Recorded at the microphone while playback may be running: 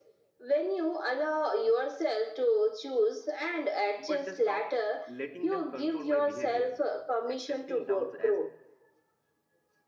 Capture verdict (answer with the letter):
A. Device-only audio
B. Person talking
B